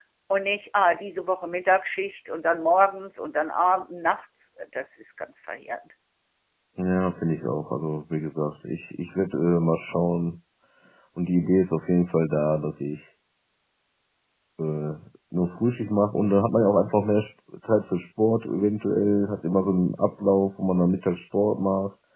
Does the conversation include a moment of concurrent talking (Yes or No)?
No